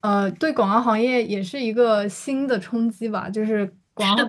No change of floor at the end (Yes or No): Yes